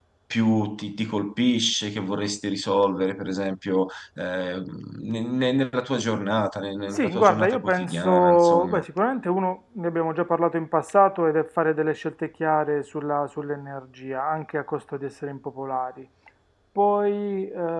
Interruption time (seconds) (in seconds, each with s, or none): 6.9 s